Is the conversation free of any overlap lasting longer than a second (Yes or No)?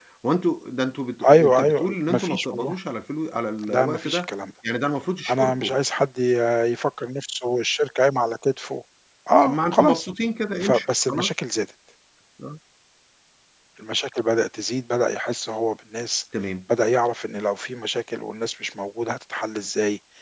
No